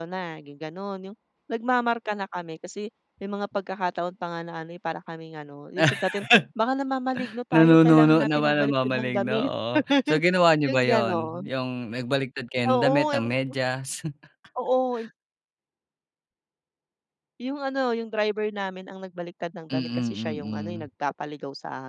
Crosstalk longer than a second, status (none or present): present